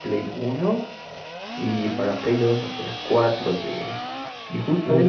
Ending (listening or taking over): listening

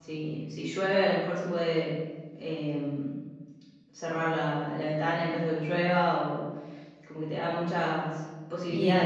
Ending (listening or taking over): taking over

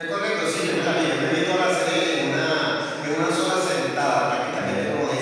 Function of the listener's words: listening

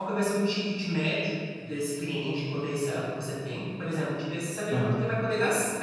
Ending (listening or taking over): listening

